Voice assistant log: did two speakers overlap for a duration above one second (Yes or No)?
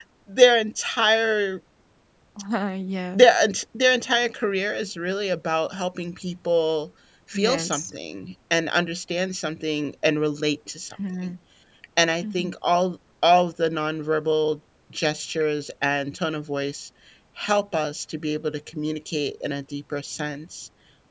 No